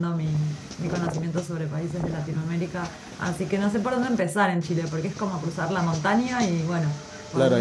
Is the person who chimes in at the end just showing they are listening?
No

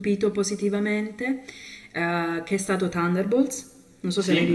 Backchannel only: No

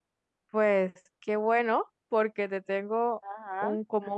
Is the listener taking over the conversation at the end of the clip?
No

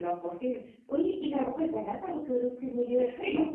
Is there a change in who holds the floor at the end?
Yes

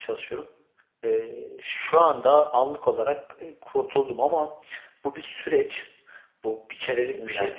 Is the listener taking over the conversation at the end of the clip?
No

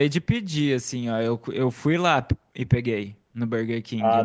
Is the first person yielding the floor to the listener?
No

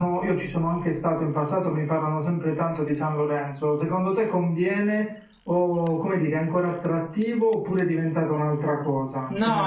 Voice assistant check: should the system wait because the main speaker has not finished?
No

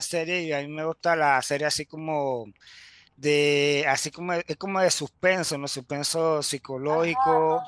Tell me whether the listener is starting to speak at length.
Yes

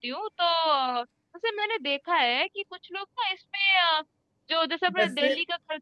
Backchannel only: Yes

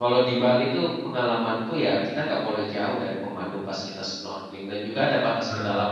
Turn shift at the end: No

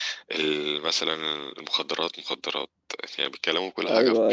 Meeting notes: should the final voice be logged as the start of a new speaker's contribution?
Yes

